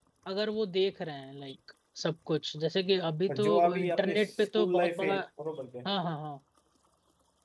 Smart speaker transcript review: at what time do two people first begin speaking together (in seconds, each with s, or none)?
3.3 s